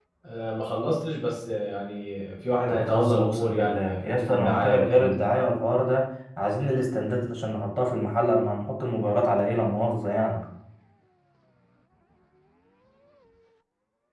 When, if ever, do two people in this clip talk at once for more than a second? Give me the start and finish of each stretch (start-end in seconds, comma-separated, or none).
2.7-5.3